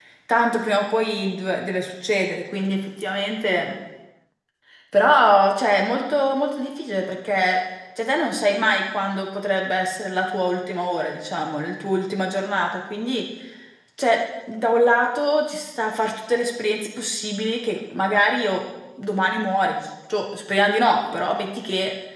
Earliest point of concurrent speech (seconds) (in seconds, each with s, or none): none